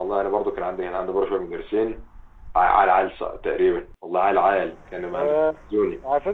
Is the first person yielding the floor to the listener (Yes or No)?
Yes